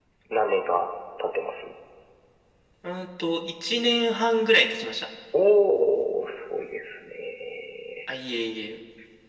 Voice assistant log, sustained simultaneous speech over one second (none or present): none